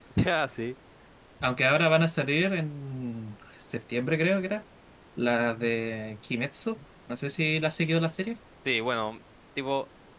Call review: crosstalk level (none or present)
none